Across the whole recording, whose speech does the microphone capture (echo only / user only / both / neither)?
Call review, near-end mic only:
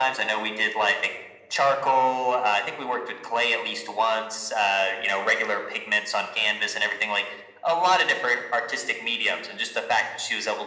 echo only